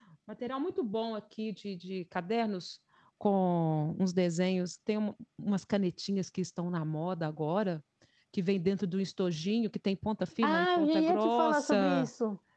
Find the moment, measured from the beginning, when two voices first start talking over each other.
10.4 s

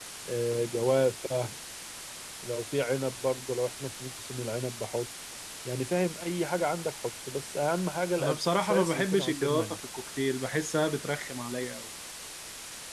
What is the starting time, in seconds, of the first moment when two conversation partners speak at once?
8.2 s

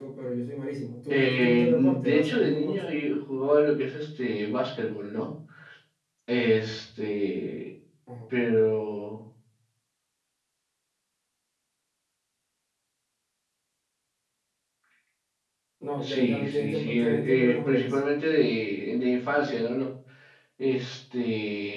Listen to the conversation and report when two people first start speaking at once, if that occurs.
1.1 s

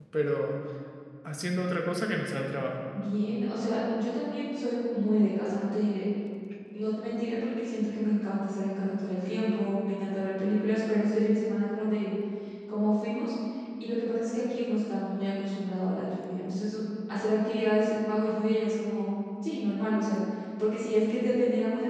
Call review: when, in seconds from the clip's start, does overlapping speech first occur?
none

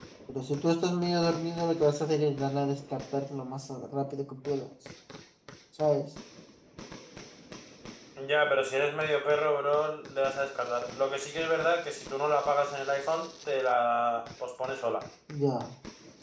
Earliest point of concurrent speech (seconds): none

